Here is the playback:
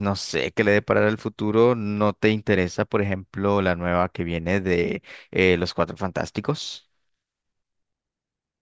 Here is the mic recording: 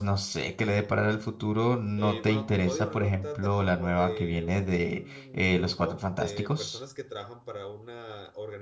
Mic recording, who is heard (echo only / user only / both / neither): both